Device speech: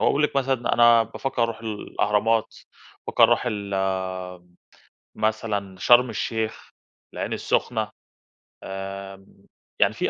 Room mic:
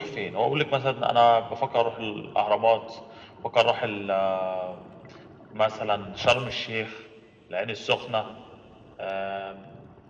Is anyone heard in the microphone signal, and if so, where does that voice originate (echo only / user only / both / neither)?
echo only